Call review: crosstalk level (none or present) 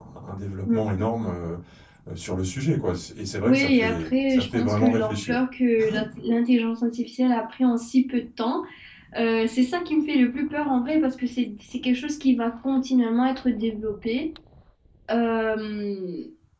present